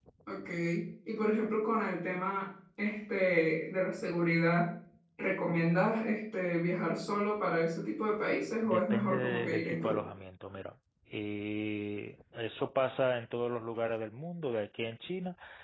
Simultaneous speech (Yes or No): Yes